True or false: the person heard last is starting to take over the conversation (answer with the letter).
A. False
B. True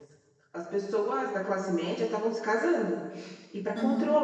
A